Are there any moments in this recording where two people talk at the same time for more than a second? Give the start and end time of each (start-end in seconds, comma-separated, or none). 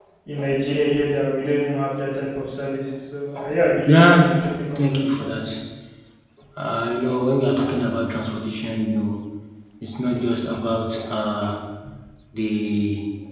3.9-5.3